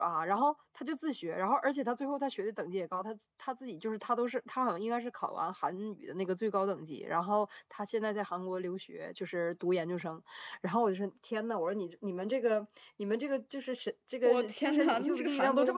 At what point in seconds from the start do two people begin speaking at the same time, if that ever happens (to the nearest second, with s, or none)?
14 s